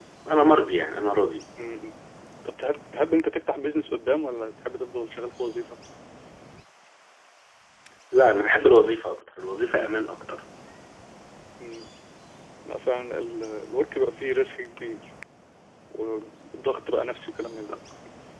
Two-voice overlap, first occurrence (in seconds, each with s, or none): none